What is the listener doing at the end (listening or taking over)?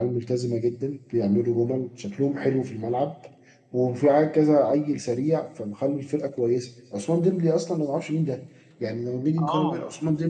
listening